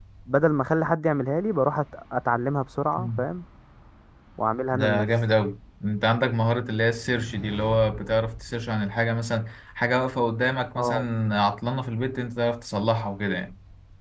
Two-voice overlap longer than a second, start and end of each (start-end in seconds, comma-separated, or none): none